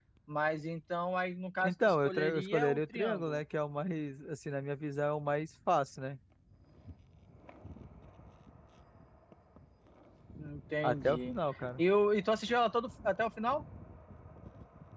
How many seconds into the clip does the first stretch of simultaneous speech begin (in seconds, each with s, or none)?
1.6 s